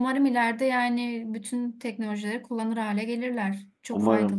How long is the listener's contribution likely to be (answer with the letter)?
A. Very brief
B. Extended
B